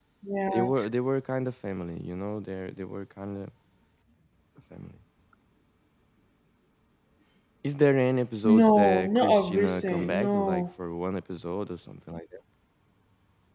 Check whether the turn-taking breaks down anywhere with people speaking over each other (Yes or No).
Yes